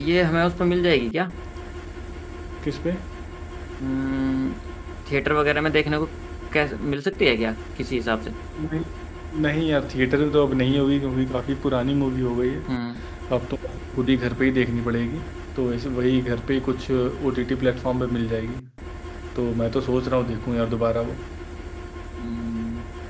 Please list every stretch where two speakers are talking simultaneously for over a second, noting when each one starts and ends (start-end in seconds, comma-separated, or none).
none